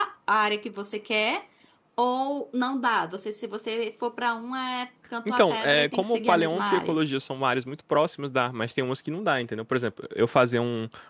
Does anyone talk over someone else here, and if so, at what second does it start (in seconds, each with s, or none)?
5.2 s